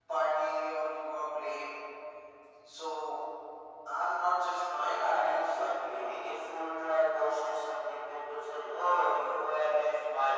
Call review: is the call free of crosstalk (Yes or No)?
No